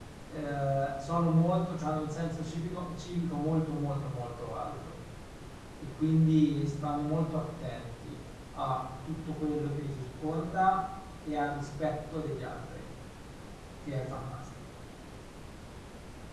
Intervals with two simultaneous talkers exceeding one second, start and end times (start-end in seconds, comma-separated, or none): none